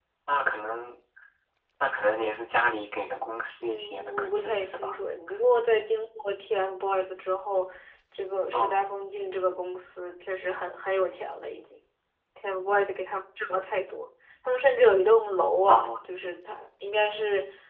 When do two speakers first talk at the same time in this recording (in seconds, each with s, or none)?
3.6 s